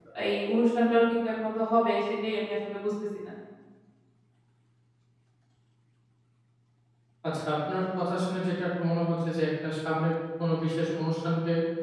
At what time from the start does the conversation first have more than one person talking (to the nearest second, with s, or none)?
none